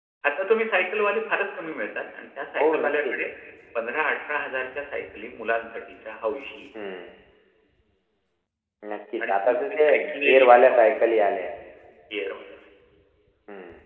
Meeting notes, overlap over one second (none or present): present